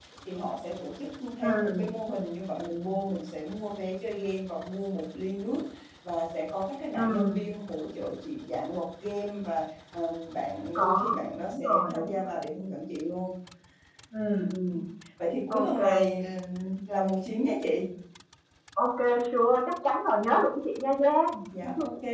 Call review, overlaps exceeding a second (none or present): present